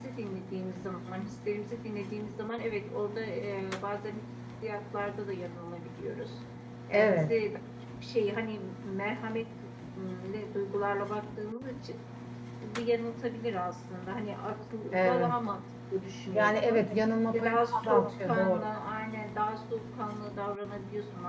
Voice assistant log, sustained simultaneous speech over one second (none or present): present